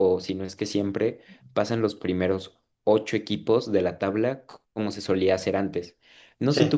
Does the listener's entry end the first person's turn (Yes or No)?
No